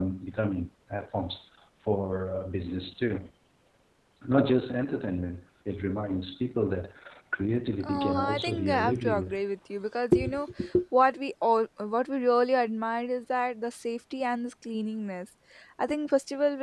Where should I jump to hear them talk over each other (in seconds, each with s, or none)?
7.8 s